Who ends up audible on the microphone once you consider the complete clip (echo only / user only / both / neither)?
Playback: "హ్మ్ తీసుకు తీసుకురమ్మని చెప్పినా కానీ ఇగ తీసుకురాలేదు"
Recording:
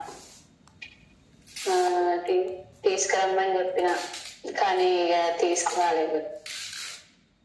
echo only